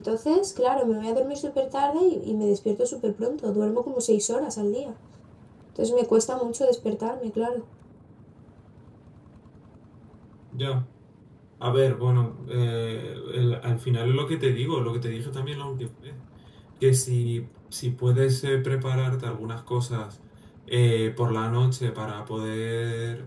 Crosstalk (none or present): none